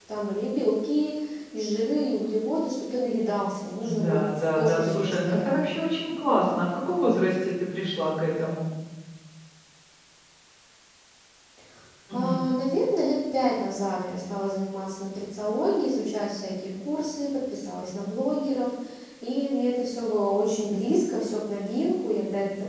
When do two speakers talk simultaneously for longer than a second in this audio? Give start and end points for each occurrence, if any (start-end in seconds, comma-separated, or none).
3.8-5.8